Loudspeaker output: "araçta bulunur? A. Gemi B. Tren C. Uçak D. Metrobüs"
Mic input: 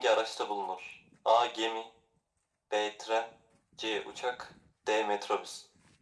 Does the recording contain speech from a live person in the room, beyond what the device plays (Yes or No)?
No